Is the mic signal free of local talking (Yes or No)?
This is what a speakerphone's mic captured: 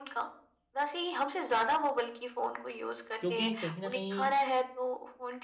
No